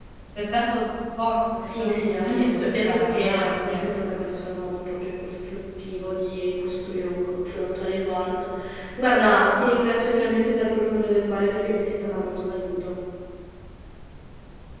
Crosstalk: present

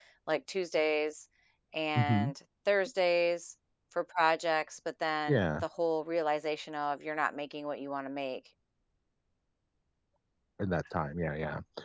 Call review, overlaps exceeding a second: none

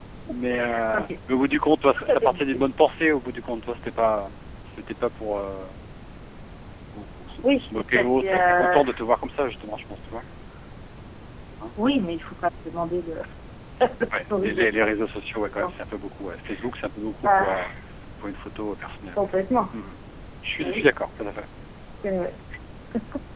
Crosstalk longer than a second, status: present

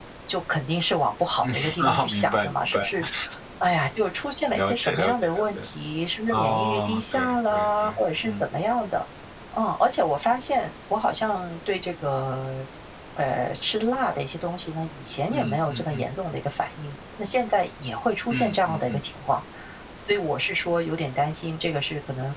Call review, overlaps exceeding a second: present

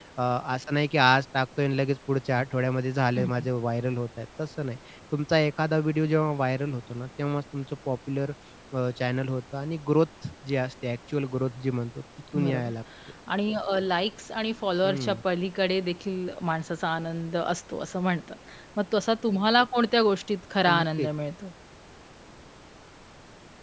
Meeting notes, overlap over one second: none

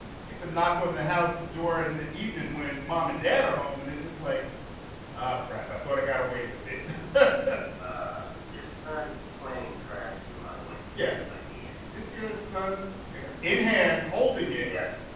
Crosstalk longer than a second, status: none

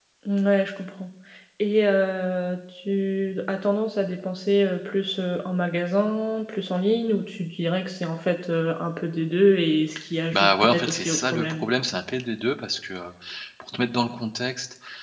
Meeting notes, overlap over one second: present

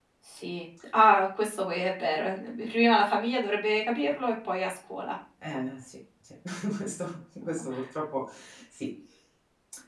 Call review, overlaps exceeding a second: none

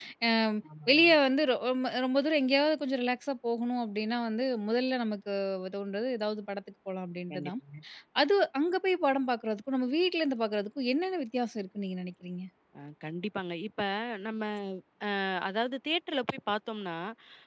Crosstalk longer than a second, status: none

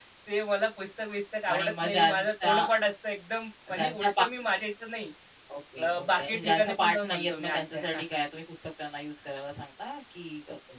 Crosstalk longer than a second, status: present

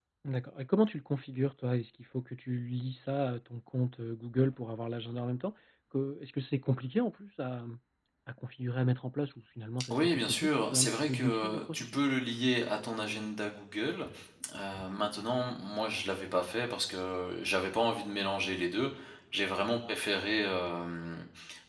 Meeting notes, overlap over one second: present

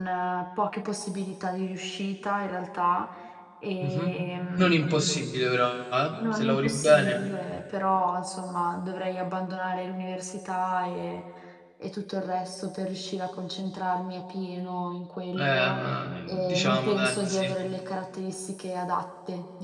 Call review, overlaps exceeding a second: present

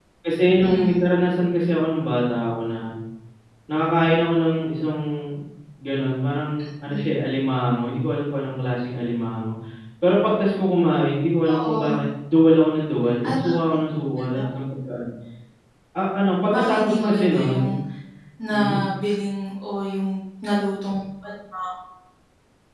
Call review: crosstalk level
present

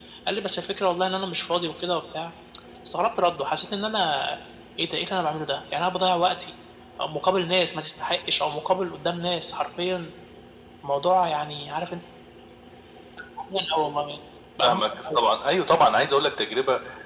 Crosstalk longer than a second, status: none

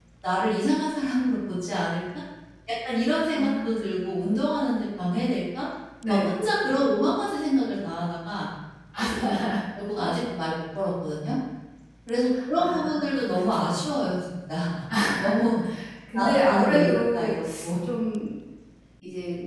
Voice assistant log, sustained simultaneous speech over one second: present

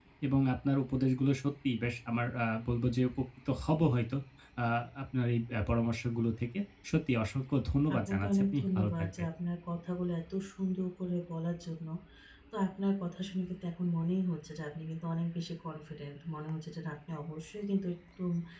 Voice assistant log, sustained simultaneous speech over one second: present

